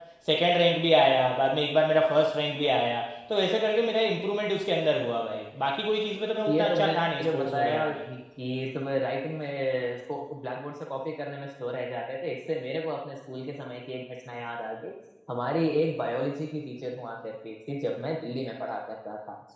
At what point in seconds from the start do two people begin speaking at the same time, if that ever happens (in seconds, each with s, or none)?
6.5 s